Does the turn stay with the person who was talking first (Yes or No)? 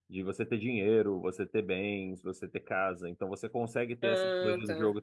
Yes